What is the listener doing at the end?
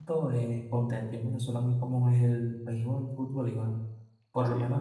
listening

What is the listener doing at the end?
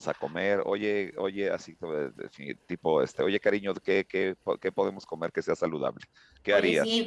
taking over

